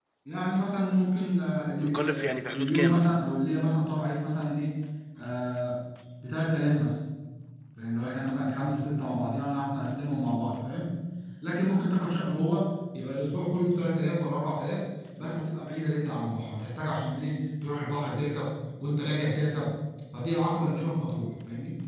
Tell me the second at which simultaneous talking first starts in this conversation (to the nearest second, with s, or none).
2 s